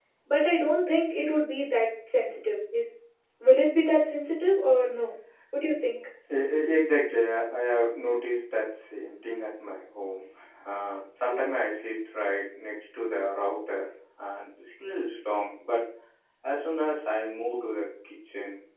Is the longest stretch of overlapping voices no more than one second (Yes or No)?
Yes